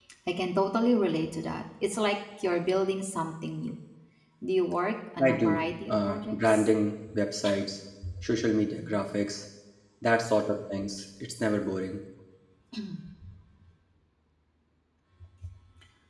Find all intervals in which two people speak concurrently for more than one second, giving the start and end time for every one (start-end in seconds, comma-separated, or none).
5.2-6.7